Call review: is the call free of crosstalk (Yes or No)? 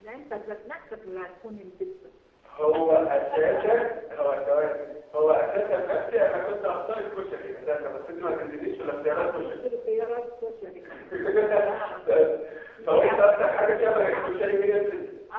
No